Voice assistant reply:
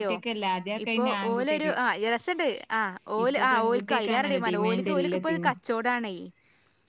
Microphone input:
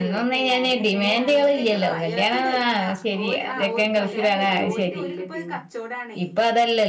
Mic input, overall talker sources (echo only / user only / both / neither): both